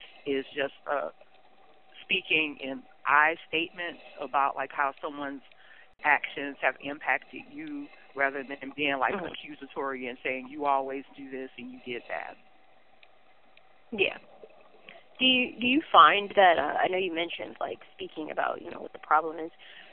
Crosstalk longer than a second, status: none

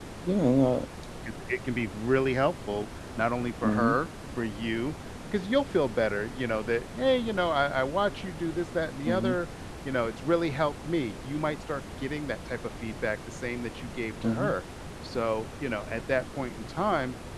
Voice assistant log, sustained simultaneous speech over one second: none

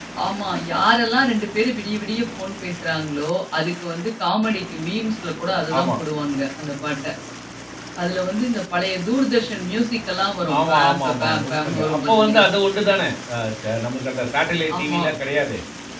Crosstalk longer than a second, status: present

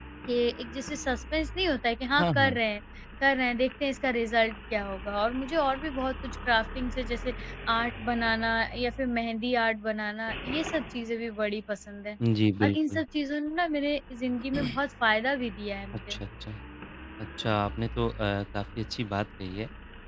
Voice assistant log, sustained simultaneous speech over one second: none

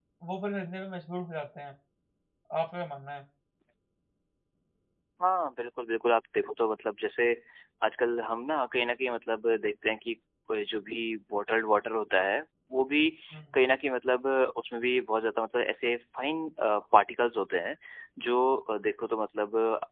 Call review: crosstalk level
none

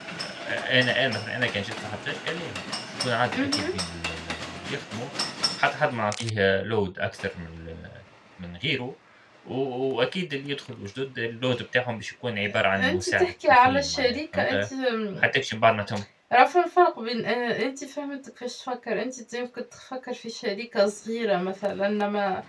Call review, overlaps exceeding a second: present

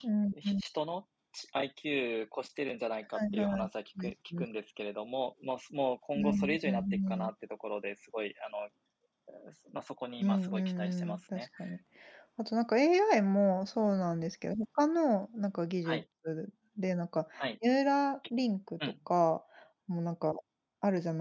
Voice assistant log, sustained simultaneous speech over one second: present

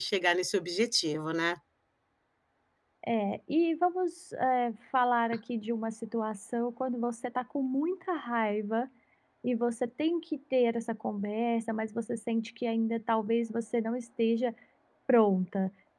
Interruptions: none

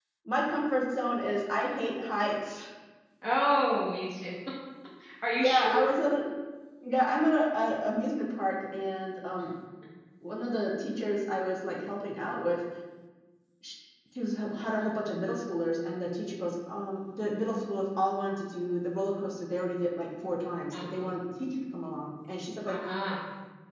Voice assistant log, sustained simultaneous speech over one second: none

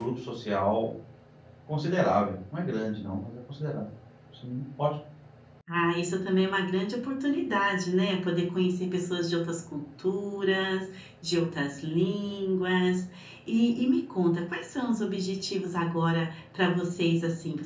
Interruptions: none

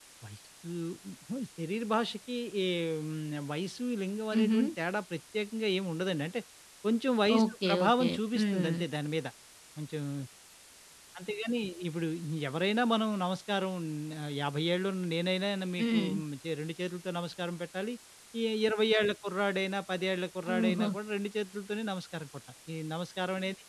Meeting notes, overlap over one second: present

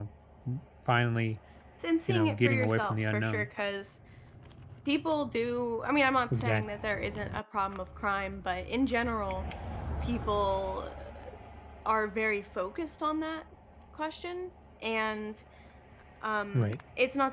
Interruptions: present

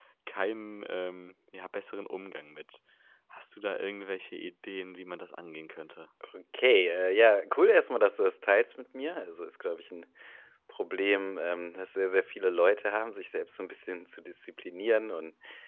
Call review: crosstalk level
none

